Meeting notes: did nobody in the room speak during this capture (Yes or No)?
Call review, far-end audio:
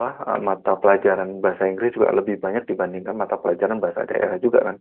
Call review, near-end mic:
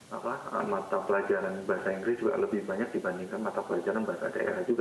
Yes